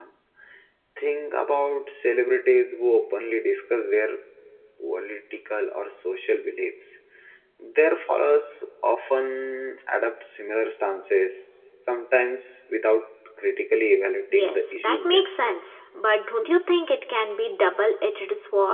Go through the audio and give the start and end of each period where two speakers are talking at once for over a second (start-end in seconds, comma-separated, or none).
14.3-15.6